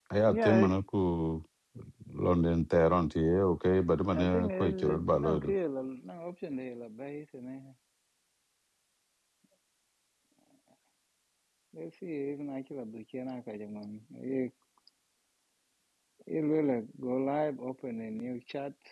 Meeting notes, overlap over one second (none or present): present